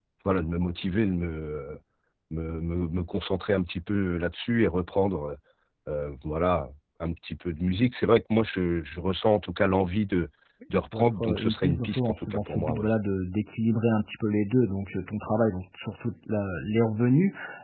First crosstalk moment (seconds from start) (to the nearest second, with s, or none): 11 s